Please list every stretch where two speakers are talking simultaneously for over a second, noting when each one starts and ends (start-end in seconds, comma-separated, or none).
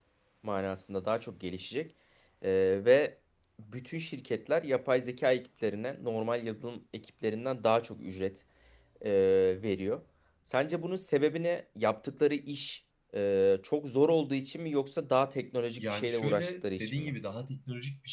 15.8-17.1